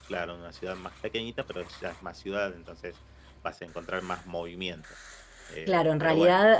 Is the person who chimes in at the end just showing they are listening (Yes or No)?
No